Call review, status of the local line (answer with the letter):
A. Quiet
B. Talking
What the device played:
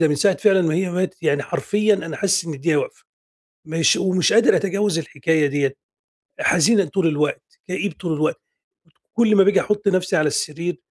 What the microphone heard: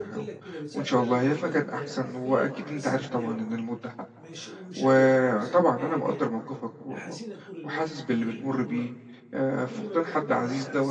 B